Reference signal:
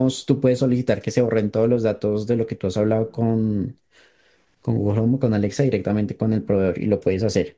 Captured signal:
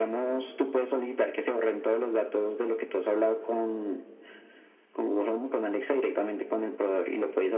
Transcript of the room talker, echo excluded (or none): none